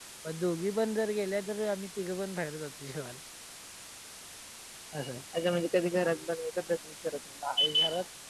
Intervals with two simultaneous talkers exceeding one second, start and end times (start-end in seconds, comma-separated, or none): none